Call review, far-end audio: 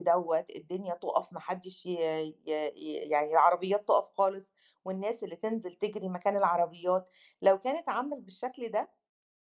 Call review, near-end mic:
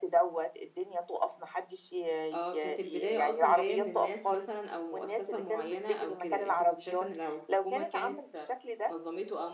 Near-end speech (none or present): present